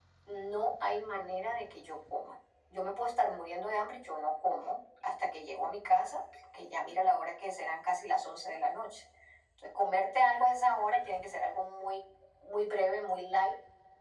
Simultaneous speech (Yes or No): No